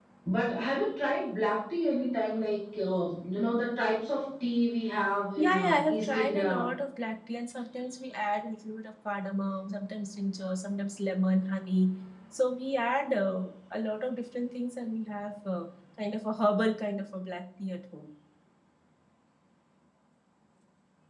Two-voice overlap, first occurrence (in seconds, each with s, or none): 5.4 s